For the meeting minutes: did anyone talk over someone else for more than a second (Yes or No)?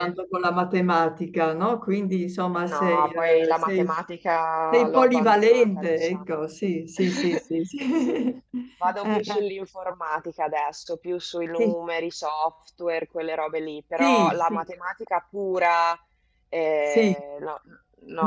Yes